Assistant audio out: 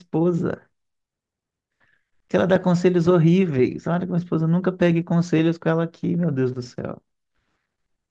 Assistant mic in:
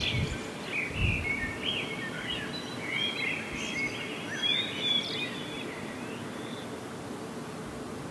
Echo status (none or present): none